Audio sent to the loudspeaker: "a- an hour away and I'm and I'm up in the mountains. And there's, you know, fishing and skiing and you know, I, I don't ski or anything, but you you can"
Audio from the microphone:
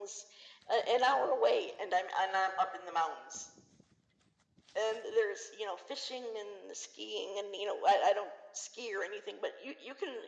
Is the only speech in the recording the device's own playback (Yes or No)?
Yes